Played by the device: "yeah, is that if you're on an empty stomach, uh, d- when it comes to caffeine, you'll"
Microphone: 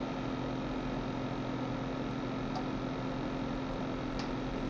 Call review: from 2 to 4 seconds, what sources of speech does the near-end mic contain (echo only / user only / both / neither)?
neither